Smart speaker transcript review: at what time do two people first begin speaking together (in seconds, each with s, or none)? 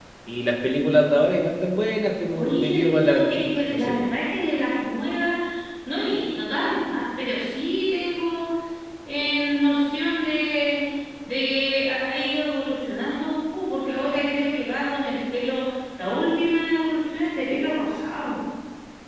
2.3 s